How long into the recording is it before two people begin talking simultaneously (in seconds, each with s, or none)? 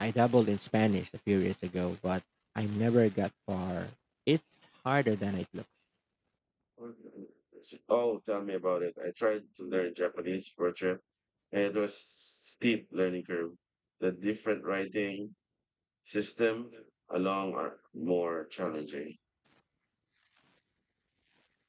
none